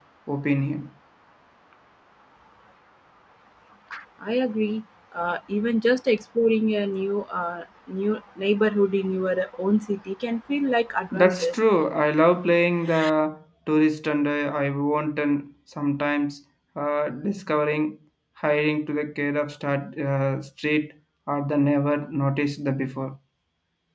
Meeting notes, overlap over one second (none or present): none